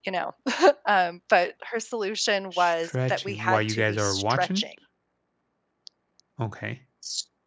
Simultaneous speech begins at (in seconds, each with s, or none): 2.5 s